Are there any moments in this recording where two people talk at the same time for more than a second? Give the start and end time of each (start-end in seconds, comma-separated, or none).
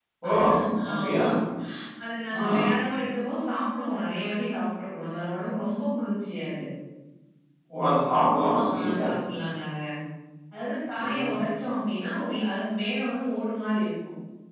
none